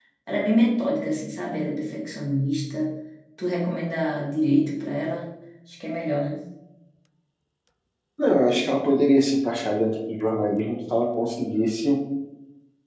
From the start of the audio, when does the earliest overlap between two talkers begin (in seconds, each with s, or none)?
none